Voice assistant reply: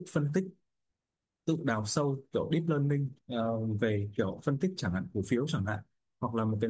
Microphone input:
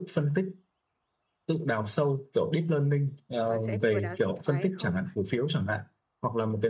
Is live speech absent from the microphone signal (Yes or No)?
No